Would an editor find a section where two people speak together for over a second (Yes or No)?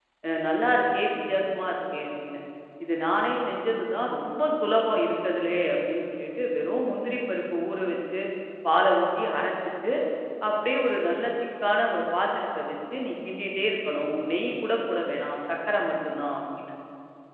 No